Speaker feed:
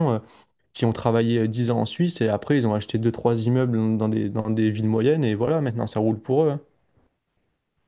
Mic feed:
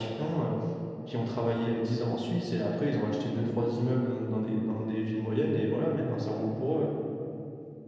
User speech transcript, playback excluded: none

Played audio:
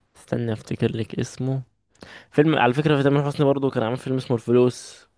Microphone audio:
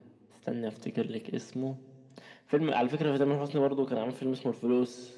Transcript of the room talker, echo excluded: none

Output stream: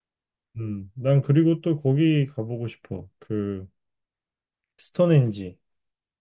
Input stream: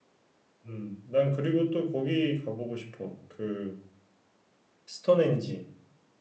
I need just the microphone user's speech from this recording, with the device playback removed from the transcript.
none

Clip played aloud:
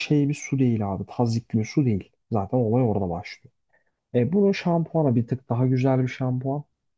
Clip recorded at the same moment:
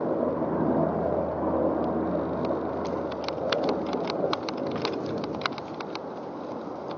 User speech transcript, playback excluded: none

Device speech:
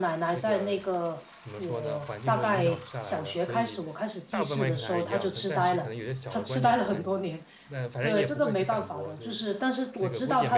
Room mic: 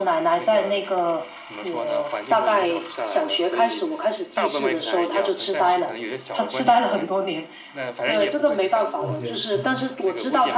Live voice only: 意见，嗯

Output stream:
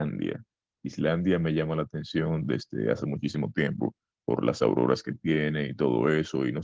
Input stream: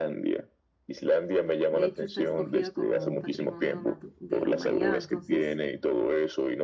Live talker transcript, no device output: de hecho está escogida como Patrimonio Natu- de la Humanidad. Entonces,

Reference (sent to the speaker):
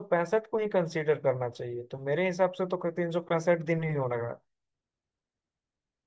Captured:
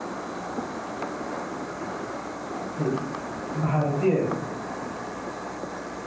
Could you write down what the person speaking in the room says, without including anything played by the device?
ठीक है भारतीय

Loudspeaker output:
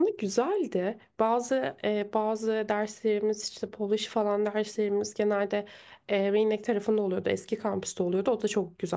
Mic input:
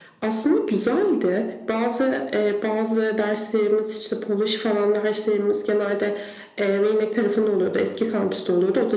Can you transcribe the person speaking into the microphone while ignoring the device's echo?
none

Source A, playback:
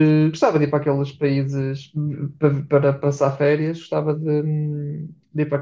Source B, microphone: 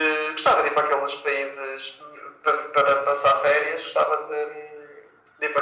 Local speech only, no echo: none

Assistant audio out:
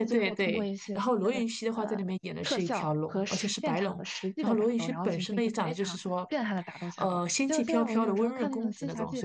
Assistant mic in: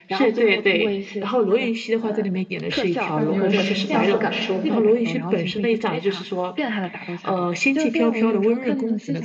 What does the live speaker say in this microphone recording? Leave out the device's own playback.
让你有这相似感受吗？

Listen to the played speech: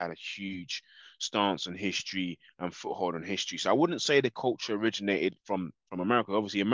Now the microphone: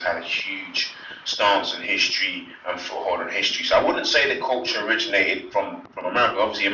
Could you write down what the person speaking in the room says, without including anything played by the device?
none

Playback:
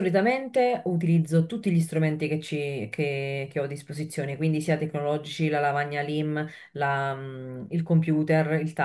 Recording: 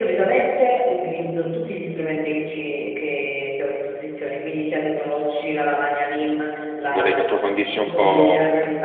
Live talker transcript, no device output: Vorrei che approfondisse un po'

